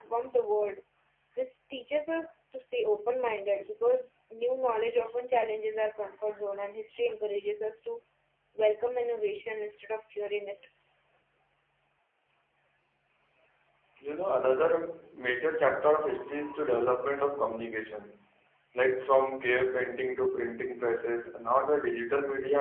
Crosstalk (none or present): none